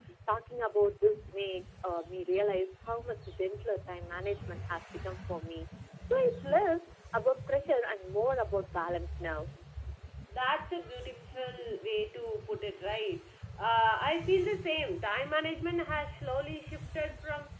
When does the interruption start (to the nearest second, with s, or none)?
none